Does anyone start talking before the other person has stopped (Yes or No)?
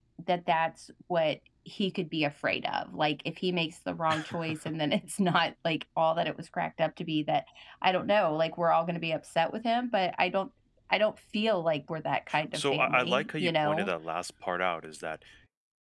Yes